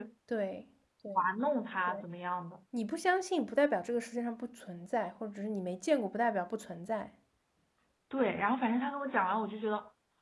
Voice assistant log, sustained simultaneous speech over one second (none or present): none